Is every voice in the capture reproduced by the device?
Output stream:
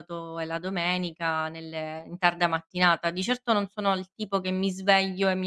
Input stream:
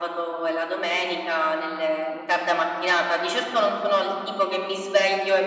Yes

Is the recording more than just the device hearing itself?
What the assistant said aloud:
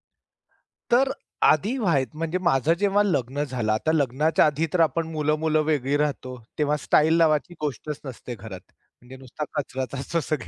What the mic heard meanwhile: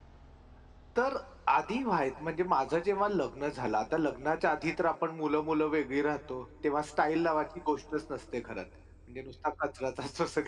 No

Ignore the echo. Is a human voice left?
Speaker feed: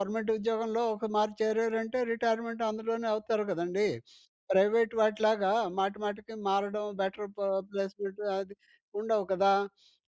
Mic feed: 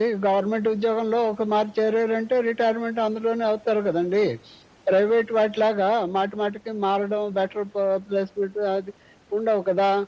No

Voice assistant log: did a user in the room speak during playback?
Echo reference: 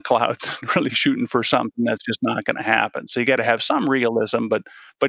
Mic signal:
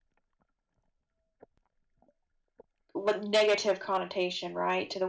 Yes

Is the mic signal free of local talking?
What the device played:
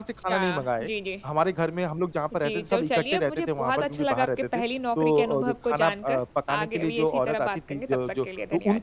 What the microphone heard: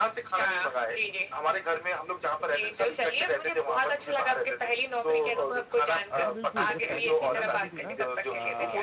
No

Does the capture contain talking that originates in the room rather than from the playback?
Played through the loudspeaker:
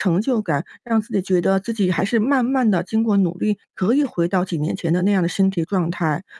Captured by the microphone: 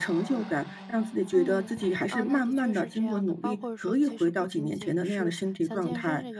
Yes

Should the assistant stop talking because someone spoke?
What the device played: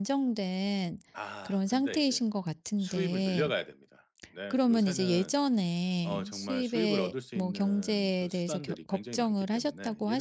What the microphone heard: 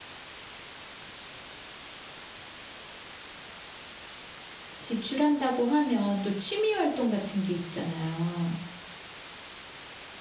Yes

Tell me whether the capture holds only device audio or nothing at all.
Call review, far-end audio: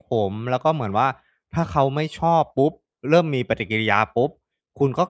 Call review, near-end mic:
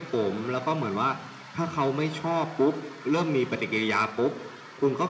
Yes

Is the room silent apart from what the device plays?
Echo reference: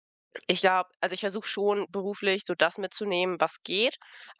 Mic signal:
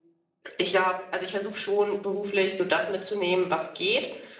Yes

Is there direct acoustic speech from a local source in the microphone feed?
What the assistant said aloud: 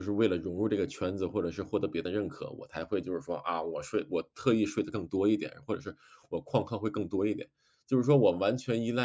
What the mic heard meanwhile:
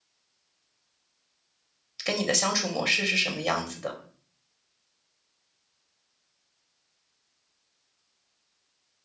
Yes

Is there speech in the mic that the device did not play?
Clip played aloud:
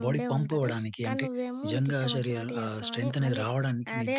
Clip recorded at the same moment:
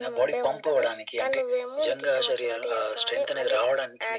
No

